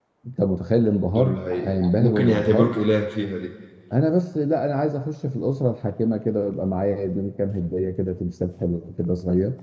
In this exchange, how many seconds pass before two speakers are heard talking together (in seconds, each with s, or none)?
1.2 s